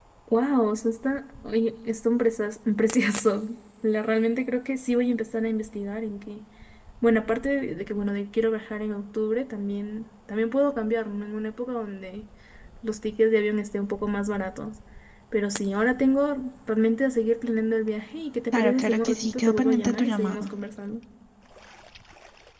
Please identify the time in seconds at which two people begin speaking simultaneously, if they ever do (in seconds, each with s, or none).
18.5 s